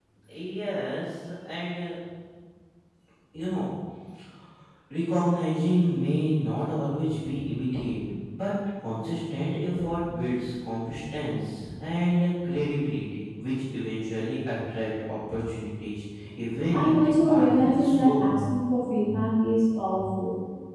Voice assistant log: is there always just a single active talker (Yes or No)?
No